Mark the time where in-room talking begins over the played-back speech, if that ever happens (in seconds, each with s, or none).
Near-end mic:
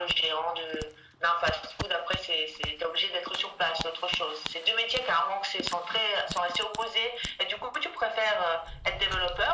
none